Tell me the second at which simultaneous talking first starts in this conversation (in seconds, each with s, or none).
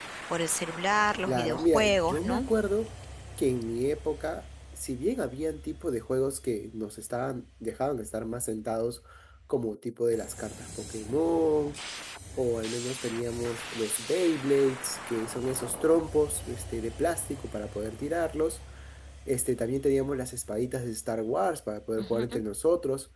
1.2 s